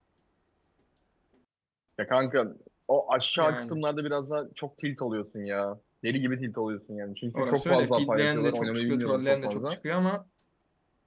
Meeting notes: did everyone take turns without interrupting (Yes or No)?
No